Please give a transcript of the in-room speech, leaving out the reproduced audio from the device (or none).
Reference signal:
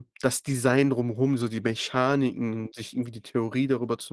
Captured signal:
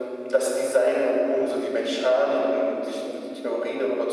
none